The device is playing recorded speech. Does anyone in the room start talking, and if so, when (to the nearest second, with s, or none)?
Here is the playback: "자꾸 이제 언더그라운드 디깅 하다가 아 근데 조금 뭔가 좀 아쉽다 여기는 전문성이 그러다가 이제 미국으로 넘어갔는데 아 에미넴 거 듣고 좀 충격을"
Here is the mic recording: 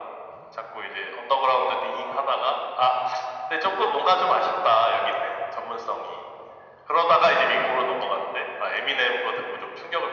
none